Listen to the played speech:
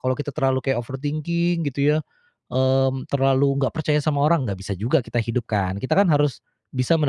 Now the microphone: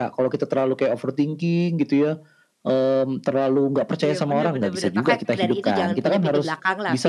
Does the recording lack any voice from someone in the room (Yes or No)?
No